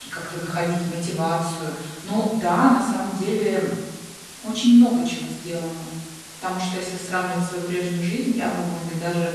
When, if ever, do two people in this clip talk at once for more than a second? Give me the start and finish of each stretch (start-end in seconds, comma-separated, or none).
none